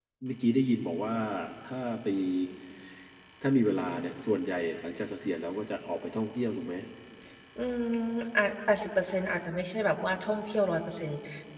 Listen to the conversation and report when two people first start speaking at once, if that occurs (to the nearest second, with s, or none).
none